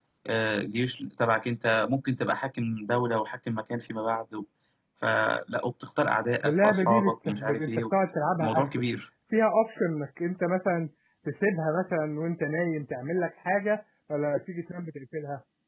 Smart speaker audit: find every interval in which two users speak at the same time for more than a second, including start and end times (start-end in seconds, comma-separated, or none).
6.4-7.8